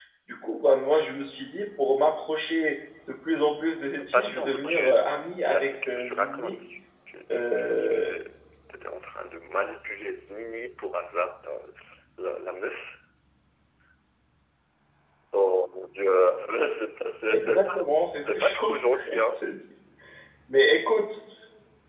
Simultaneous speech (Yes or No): Yes